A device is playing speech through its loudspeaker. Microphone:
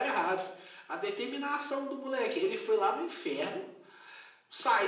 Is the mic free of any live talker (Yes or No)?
Yes